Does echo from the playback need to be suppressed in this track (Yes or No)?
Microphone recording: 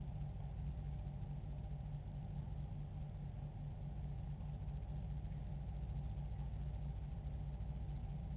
No